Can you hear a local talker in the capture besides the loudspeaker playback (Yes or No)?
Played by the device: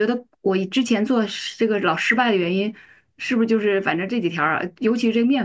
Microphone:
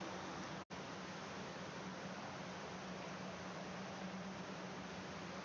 No